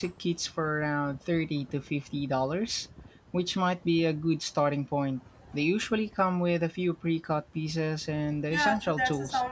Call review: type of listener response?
taking over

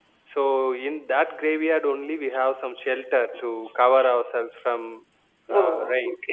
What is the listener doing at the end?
taking over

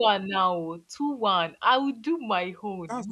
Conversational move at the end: taking over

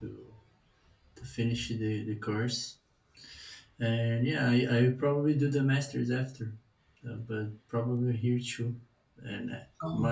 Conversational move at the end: listening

